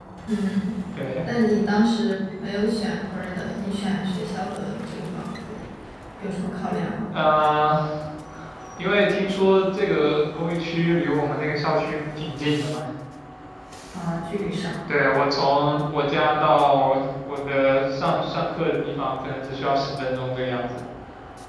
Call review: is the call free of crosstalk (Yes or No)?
Yes